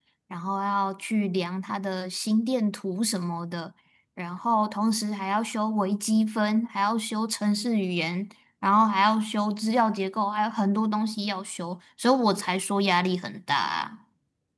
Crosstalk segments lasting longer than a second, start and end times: none

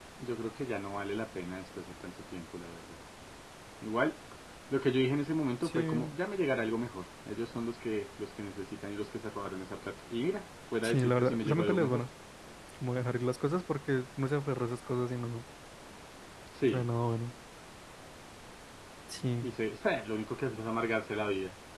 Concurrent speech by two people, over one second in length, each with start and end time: 10.8-12.0

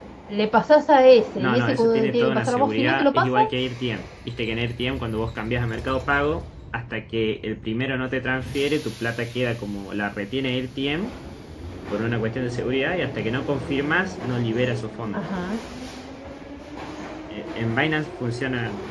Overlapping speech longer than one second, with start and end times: 1.4-3.4

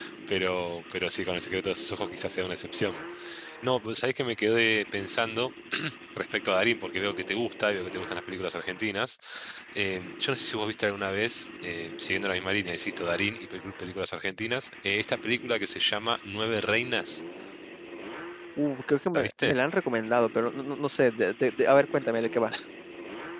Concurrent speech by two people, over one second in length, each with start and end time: none

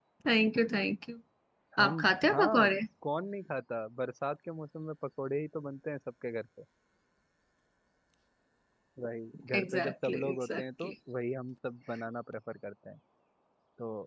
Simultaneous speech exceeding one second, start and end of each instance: 9.6-10.9

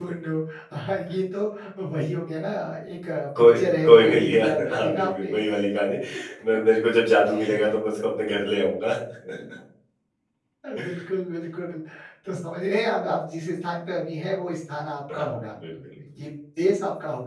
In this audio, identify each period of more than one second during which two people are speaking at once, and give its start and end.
3.4-5.3

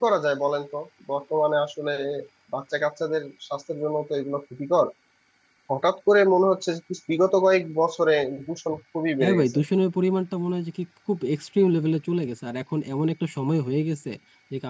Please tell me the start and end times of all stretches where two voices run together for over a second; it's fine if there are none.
none

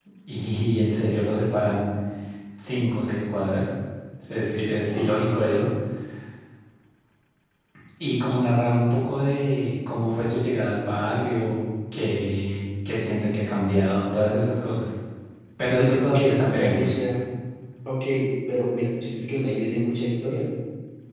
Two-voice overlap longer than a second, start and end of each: 15.7-17.0

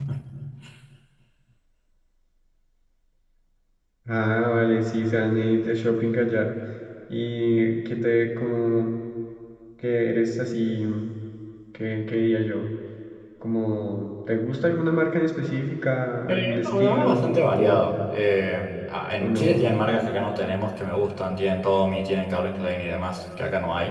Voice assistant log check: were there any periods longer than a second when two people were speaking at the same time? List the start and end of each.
16.3-17.9

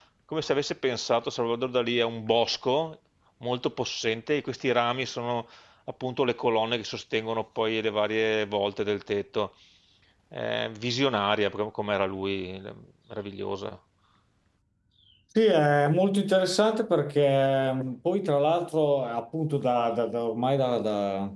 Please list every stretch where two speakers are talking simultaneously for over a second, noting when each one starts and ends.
none

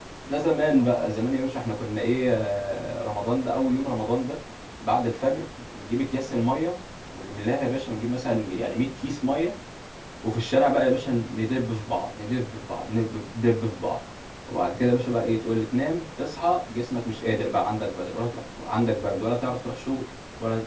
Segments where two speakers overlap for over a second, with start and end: none

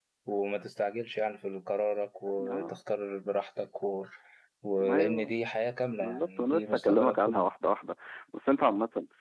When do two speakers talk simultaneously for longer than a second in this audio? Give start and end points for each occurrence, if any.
6.0-7.4

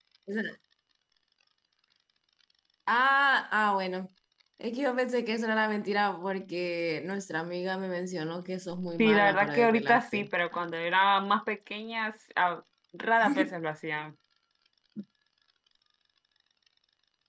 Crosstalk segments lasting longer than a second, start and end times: 9.0-10.3

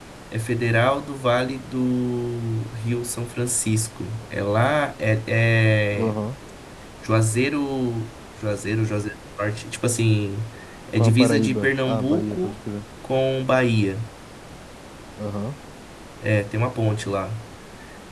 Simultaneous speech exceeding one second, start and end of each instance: 11.0-12.6

